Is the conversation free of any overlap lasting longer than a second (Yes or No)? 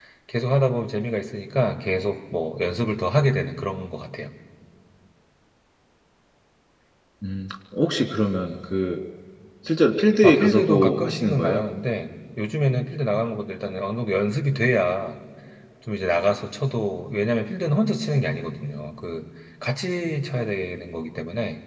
No